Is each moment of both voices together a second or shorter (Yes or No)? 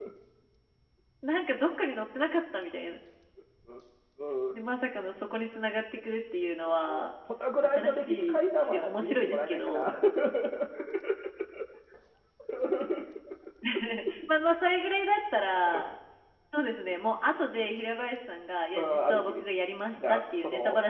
No